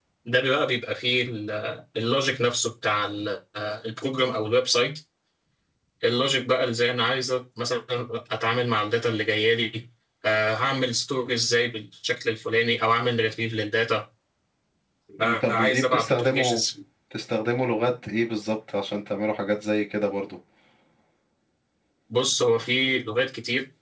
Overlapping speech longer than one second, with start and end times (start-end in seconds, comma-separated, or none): 15.2-16.6